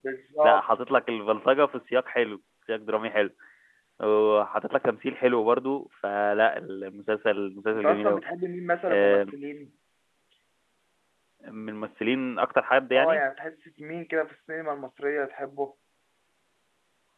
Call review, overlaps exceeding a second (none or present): none